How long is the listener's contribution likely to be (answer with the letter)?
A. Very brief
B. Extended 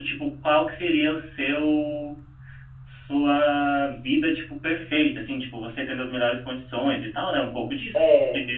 A